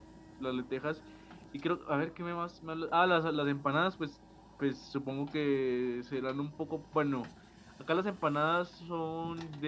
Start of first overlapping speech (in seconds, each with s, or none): none